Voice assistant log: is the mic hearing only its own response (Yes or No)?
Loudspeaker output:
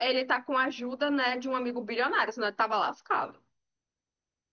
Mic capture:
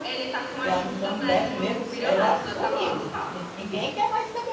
No